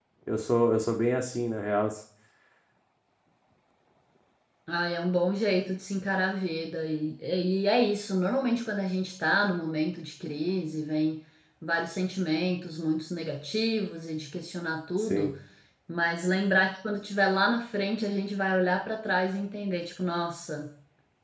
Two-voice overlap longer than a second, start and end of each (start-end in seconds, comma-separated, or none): none